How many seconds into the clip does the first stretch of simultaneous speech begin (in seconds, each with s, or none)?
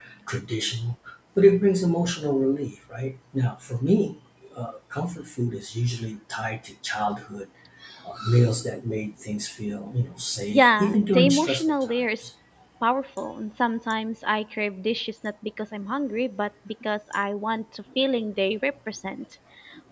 10.5 s